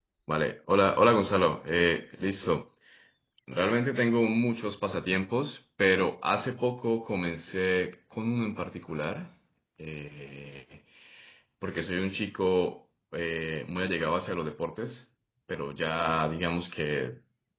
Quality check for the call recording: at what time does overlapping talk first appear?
none

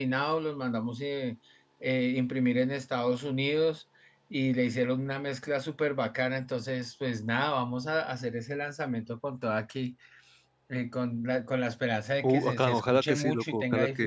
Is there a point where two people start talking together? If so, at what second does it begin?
12.2 s

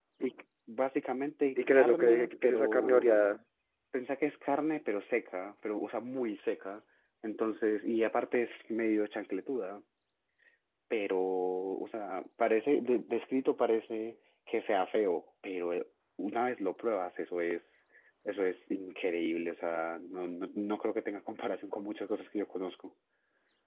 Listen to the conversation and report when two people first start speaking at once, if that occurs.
1.6 s

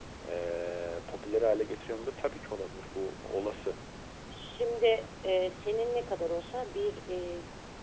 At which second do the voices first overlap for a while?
none

